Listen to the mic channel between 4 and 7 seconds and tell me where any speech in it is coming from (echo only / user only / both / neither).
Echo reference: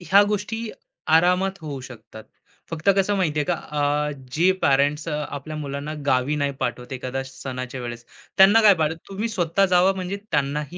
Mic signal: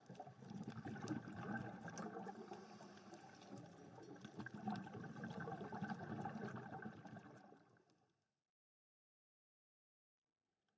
neither